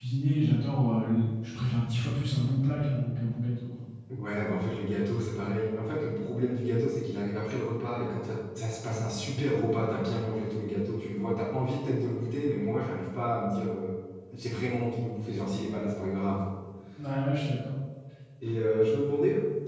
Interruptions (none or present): none